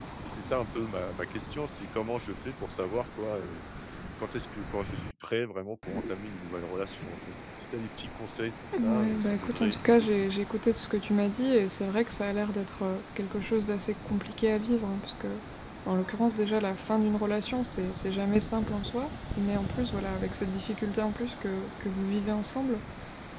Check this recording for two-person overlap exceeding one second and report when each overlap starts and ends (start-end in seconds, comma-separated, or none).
8.8-10.3